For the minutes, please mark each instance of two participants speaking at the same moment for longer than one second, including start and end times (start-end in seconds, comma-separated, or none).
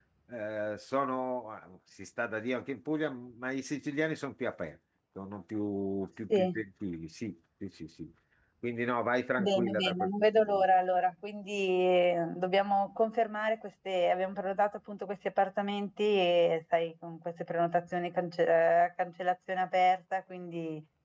9.4-10.6